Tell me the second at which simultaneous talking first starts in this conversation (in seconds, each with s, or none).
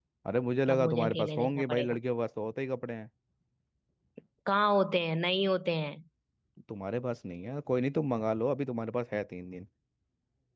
0.7 s